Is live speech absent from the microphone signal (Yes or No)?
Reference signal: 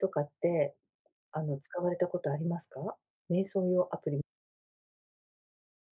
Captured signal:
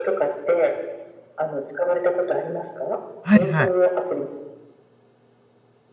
No